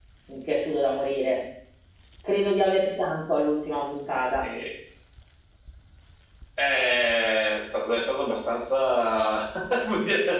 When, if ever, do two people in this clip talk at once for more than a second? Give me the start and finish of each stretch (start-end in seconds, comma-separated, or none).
none